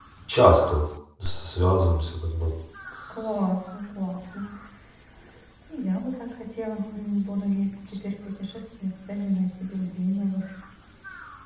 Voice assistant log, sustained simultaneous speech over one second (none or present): none